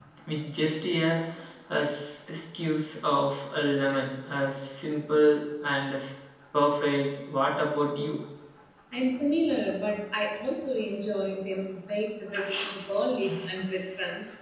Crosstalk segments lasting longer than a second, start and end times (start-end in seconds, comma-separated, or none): none